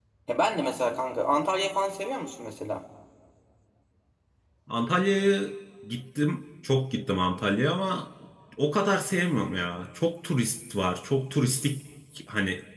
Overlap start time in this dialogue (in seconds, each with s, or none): none